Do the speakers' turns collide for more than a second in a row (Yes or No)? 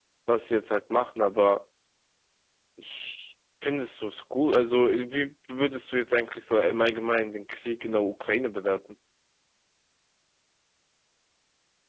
No